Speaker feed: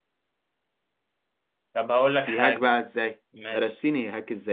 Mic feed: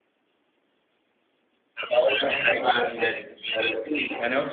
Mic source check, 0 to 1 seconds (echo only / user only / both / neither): neither